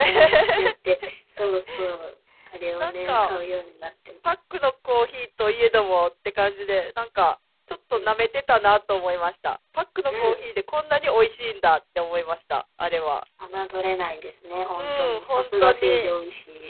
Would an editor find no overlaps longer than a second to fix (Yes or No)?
No